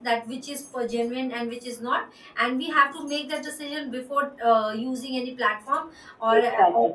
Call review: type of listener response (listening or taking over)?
listening